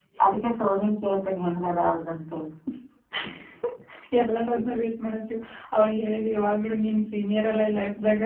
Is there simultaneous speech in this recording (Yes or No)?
No